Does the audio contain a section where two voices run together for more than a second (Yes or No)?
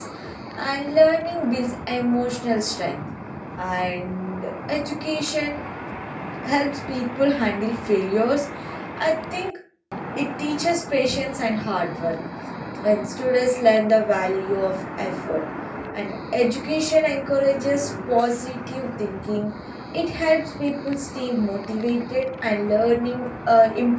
No